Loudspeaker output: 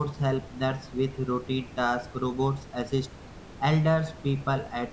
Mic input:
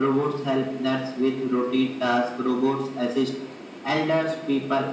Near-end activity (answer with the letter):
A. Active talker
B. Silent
B